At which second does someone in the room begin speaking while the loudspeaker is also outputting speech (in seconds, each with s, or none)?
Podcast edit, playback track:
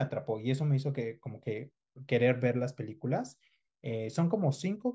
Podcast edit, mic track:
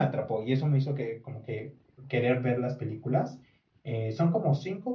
none